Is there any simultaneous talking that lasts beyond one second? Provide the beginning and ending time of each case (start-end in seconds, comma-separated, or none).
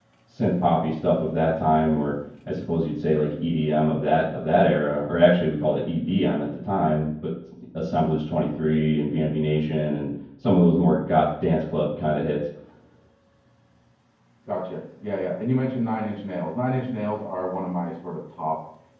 none